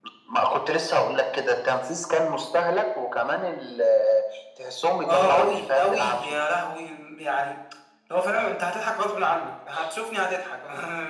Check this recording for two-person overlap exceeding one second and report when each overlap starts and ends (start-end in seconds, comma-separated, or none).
5.1-6.4